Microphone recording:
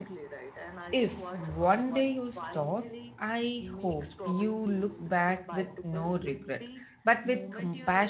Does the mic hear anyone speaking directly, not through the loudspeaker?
Yes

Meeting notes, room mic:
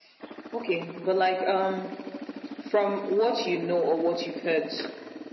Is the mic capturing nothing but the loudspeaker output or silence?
Yes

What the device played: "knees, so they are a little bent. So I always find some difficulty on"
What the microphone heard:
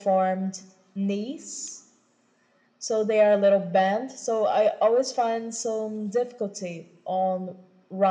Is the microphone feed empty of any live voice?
Yes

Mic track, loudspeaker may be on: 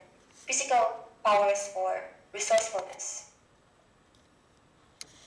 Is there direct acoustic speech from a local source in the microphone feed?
No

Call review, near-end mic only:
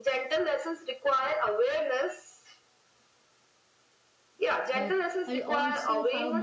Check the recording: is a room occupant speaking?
Yes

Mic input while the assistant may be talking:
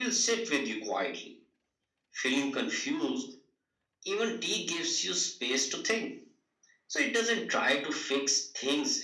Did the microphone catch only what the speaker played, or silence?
Yes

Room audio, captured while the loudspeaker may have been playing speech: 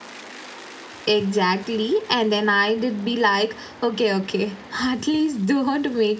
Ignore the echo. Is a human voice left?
Yes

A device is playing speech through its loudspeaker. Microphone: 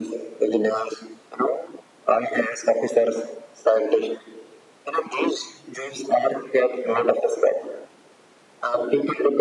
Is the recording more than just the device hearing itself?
No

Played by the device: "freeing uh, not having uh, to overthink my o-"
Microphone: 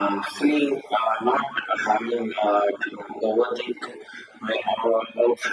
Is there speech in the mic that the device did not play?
No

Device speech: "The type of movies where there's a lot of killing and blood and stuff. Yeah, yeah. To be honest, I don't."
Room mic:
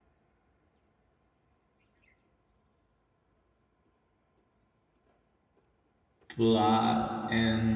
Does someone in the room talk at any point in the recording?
Yes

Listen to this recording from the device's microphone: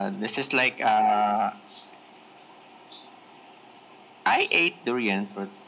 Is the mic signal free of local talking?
Yes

